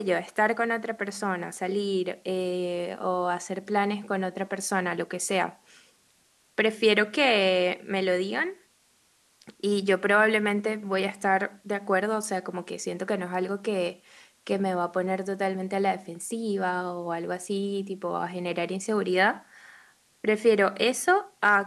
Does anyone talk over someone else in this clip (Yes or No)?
No